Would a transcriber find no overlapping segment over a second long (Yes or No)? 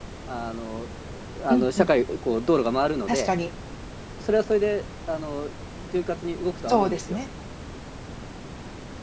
Yes